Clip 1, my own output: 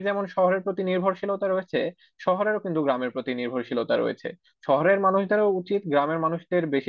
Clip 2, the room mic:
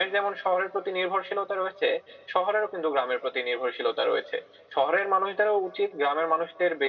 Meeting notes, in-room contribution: none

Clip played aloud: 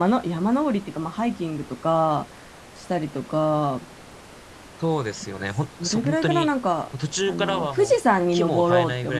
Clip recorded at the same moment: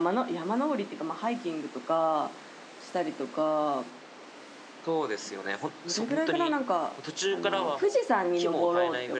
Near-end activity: none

